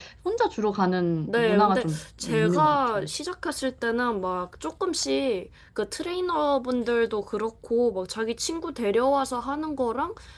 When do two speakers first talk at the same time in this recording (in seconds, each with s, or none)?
1.3 s